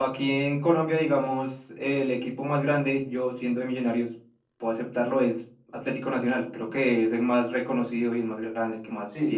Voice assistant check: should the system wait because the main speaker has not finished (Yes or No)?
No